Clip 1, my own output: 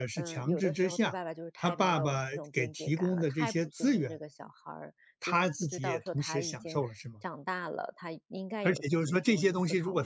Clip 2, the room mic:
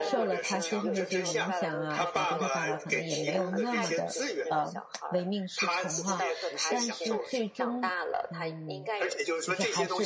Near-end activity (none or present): present